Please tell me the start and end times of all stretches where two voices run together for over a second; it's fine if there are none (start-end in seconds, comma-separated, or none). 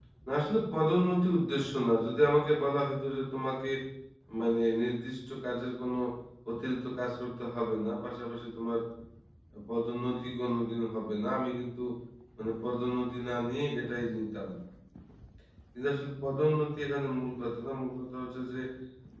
none